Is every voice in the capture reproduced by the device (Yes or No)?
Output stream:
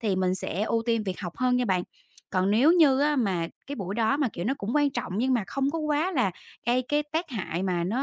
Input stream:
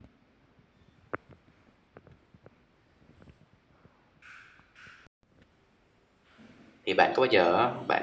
No